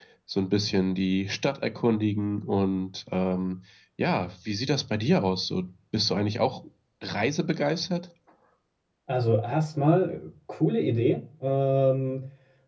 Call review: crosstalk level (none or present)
none